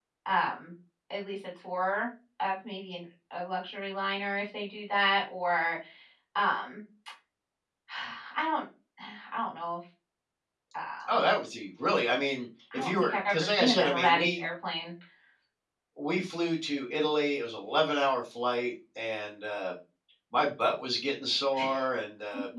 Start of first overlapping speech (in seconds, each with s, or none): 12.7 s